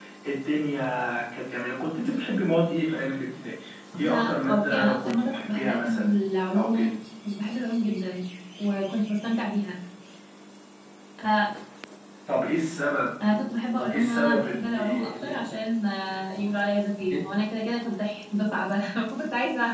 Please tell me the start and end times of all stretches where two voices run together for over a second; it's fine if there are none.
4.0-6.1, 13.9-15.5

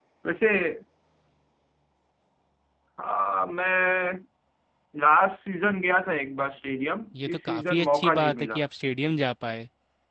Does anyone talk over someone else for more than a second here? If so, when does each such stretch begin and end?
7.3-8.6

